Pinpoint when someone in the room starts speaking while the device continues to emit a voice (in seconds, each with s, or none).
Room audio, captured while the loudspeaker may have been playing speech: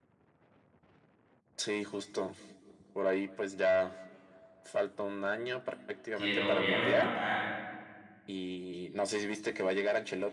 6.1 s